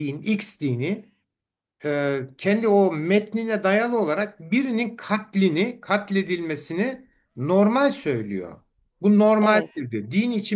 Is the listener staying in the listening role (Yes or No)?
Yes